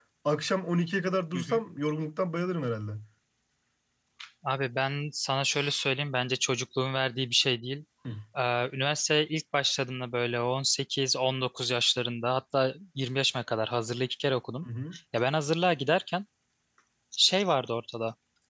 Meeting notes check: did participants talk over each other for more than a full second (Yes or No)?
No